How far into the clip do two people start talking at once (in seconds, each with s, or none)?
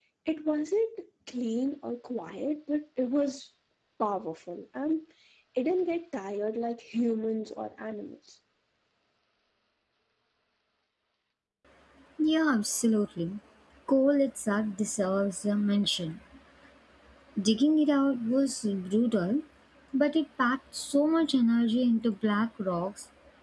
none